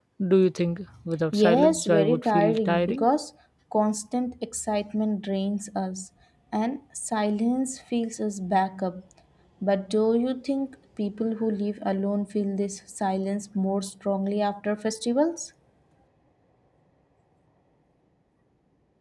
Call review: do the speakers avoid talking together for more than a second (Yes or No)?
No